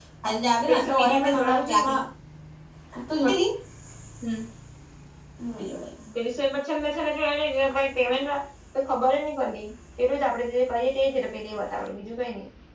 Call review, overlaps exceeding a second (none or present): present